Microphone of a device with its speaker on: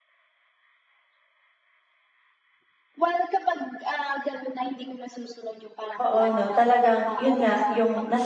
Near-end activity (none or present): present